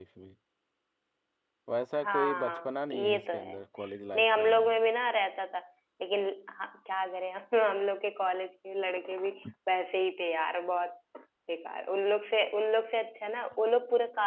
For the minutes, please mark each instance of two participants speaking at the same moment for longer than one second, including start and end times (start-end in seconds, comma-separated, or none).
2.0-3.6